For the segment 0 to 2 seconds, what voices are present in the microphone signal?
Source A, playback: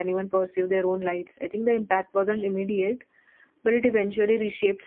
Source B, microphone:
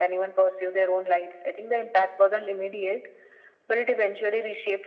echo only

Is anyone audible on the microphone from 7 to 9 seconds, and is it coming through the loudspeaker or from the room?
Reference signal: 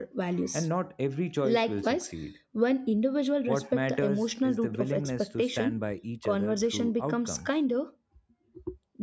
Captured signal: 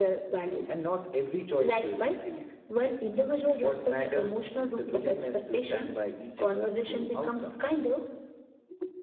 echo only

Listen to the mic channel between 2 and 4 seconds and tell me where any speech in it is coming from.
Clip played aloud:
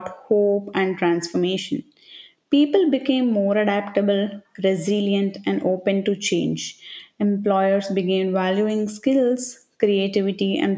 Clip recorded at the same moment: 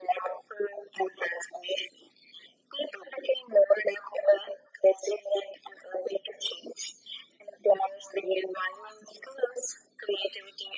echo only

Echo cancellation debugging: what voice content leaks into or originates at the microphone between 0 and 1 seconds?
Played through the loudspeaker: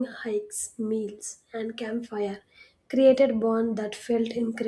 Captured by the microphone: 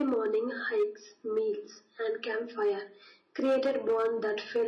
echo only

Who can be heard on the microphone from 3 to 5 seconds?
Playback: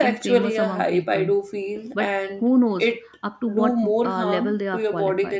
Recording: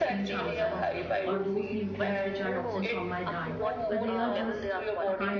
both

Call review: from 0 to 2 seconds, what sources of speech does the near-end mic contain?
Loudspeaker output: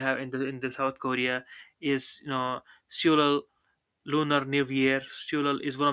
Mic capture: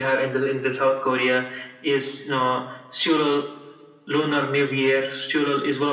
echo only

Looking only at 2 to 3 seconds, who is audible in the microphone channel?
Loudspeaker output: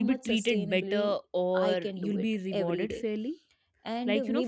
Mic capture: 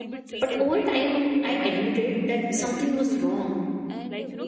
both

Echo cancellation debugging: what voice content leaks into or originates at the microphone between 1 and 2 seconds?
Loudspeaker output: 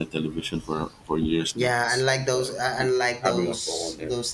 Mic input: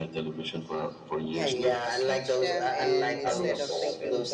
both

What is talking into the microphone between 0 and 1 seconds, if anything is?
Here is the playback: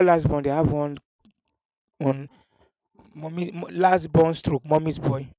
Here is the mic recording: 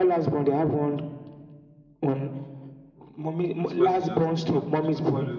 echo only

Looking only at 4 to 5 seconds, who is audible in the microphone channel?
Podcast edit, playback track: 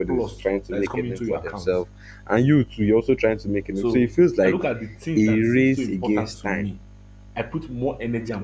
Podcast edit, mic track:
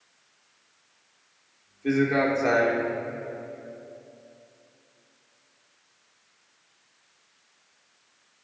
neither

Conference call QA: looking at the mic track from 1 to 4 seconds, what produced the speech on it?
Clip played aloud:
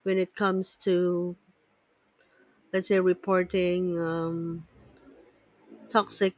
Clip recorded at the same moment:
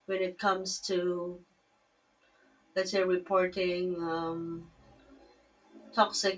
echo only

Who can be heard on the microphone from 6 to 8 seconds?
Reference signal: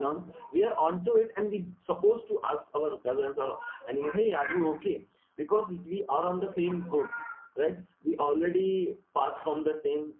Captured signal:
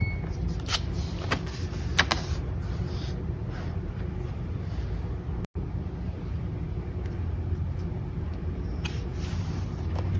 neither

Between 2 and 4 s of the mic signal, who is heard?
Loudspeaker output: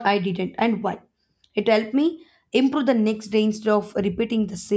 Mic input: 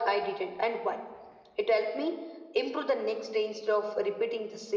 echo only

